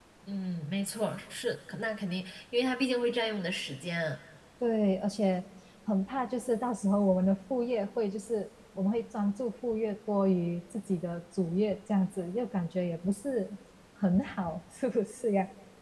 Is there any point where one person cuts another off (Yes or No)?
No